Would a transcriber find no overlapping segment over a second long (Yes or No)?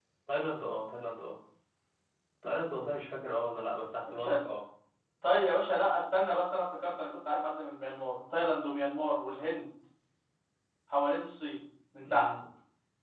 Yes